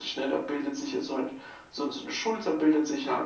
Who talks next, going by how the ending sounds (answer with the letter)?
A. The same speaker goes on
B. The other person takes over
A